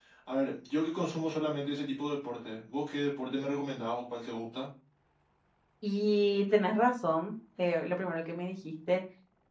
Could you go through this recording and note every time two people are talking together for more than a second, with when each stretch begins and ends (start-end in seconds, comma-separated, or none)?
none